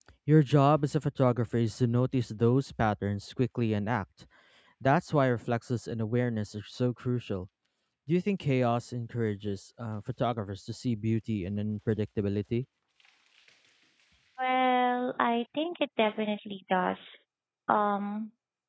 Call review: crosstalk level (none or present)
none